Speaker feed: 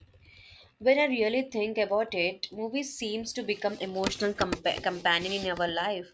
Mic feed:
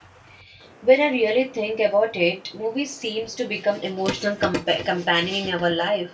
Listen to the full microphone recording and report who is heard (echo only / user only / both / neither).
echo only